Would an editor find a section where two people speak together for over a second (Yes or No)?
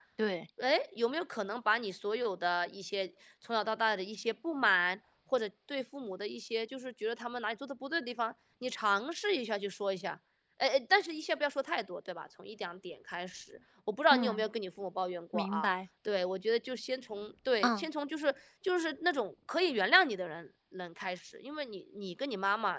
No